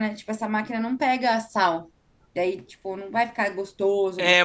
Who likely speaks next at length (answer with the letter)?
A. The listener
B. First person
A